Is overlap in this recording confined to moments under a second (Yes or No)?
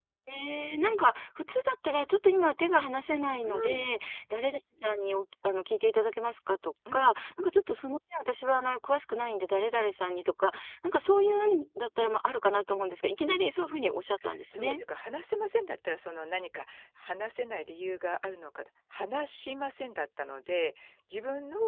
Yes